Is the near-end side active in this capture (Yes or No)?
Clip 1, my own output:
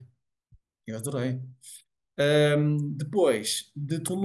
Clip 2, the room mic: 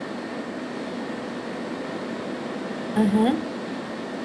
Yes